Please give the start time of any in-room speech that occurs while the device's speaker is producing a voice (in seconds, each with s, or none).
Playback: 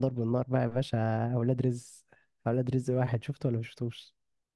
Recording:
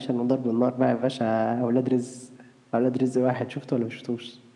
none